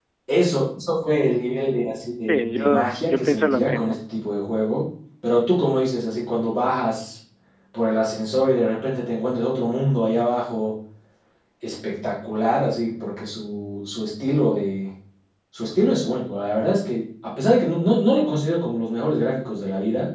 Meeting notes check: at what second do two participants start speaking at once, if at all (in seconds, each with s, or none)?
2.3 s